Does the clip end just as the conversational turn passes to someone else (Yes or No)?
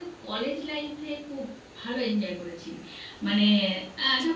No